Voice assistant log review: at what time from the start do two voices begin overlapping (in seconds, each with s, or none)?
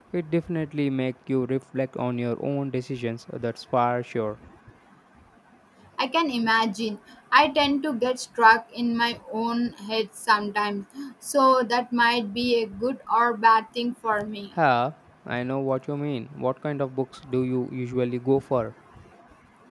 none